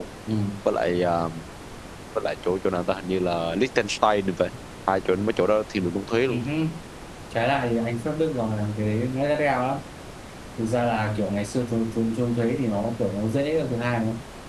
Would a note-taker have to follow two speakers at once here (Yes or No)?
No